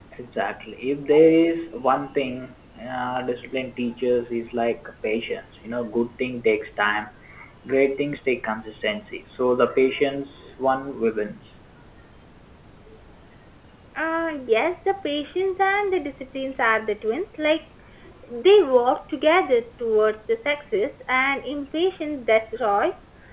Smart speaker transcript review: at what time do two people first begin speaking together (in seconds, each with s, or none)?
none